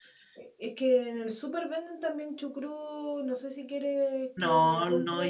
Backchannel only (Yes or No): No